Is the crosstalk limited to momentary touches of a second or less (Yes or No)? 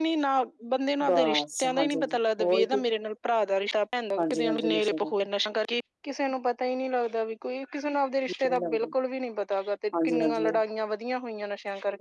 No